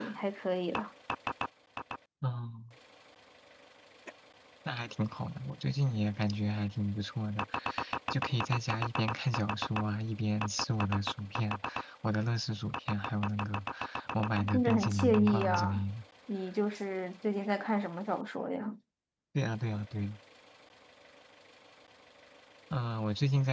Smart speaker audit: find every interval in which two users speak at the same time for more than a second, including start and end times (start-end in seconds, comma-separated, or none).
14.5-15.8